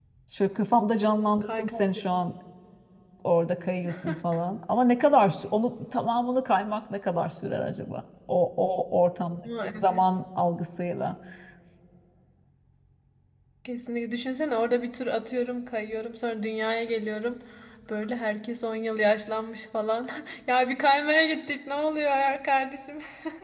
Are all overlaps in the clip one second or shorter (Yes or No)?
Yes